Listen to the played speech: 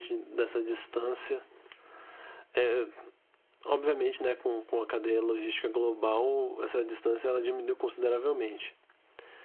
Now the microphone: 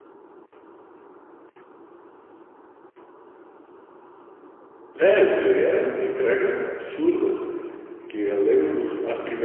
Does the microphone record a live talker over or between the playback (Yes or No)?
Yes